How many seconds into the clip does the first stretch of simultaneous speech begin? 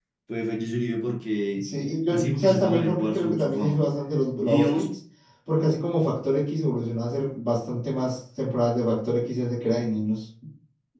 2.1 s

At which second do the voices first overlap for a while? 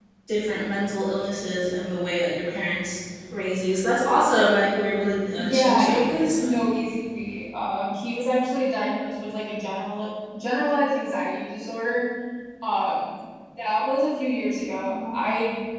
5.4 s

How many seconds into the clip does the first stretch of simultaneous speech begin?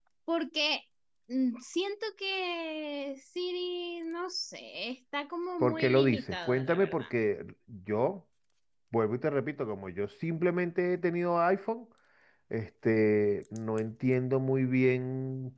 5.6 s

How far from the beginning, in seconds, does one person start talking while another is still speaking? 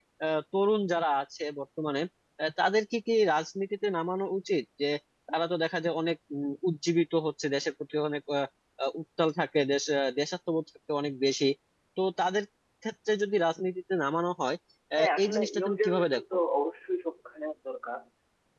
15.0 s

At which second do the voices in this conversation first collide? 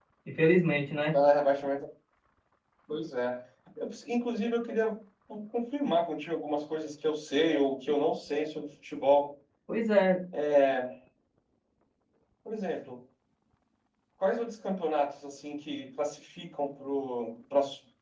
none

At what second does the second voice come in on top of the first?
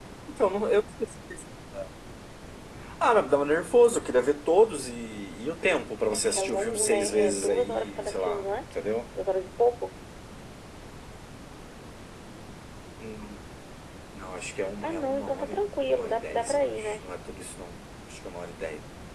6.2 s

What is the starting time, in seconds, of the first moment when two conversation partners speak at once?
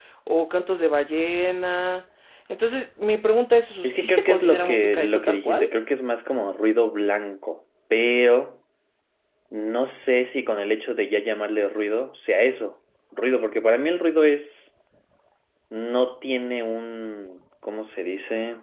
3.8 s

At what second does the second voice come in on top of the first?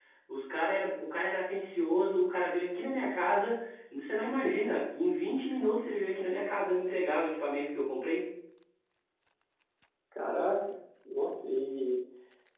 none

